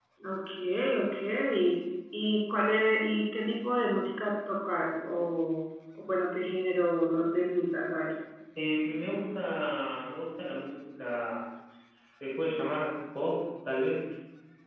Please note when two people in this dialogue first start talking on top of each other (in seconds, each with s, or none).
none